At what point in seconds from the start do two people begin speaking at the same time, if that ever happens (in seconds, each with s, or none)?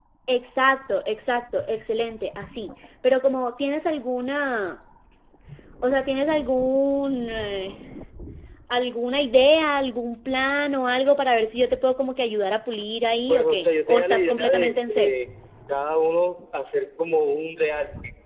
13.3 s